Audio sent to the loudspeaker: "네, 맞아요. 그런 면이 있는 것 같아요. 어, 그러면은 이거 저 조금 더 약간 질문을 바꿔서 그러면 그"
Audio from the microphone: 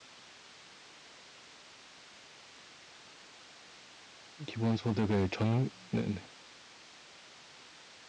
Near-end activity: present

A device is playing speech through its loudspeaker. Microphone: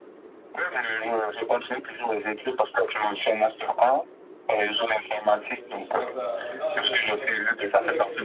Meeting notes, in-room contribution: present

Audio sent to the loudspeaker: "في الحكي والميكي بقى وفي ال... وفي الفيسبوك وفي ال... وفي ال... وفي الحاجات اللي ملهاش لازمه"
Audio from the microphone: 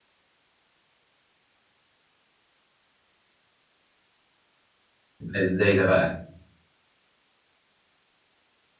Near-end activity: present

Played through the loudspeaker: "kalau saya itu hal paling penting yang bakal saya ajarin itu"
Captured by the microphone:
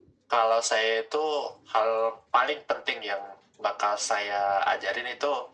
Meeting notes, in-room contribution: none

